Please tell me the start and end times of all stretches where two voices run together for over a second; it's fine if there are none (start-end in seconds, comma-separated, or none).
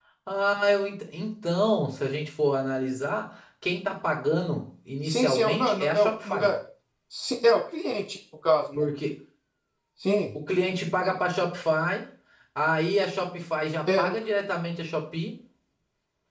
5.0-6.5